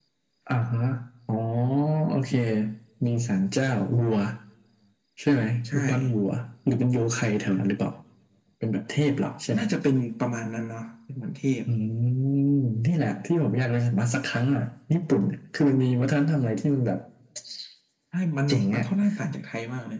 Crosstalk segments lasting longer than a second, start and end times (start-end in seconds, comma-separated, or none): none